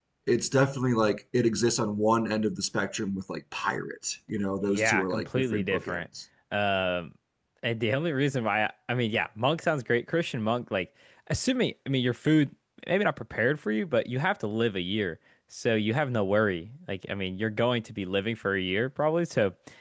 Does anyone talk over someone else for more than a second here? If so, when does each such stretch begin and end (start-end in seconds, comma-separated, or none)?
4.7-6.0